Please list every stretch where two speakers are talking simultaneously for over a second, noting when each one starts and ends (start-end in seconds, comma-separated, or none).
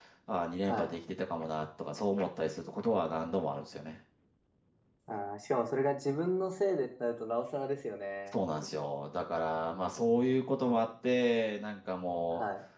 none